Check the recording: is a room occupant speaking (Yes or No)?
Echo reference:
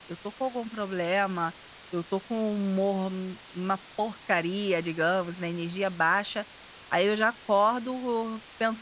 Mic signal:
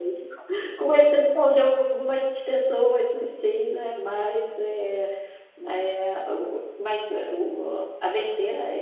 Yes